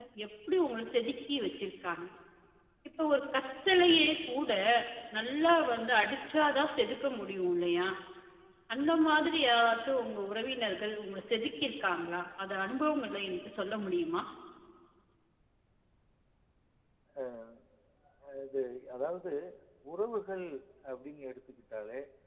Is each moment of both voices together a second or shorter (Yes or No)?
Yes